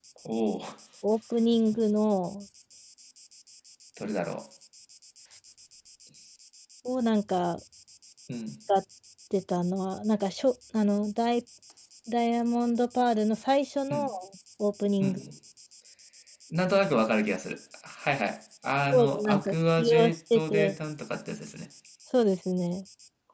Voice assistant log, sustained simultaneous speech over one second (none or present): present